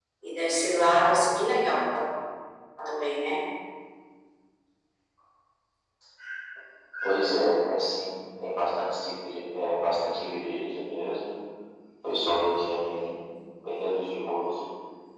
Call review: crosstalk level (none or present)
none